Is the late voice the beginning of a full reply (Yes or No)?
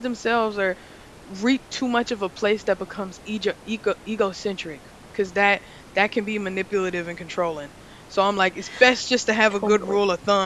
No